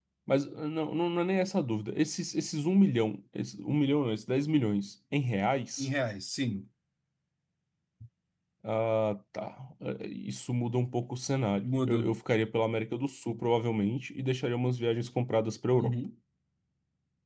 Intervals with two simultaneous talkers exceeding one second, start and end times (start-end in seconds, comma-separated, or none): none